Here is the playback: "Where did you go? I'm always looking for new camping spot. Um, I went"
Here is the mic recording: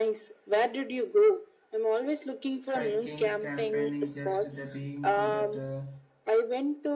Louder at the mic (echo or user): echo